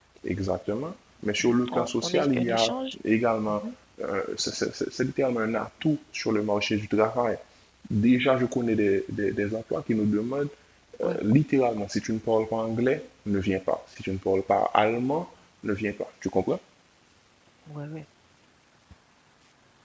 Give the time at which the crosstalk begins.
1.5 s

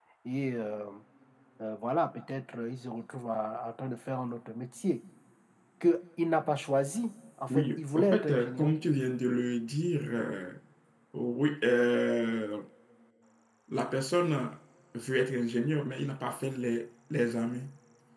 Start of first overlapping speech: 7.5 s

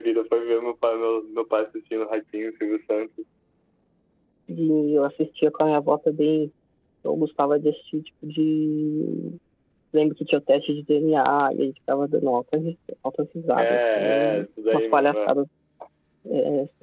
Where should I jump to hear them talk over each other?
13.6 s

